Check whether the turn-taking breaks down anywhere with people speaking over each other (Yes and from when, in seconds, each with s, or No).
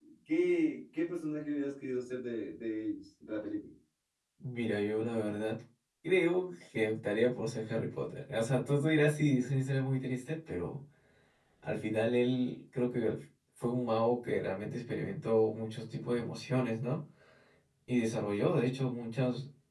No